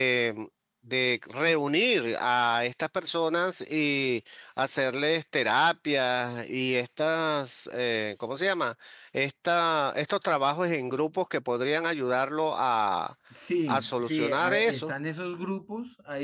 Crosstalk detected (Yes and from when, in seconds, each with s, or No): Yes, from 13.7 s